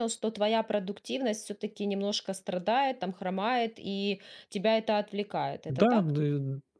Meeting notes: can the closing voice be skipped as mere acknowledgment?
No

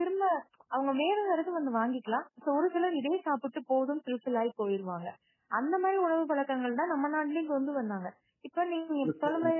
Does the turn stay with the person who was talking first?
Yes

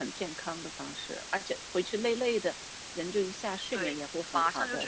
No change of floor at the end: No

